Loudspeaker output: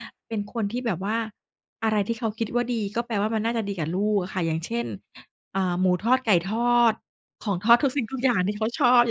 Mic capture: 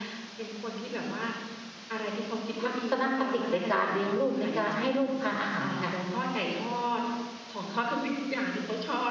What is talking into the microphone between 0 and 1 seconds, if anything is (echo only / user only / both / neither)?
echo only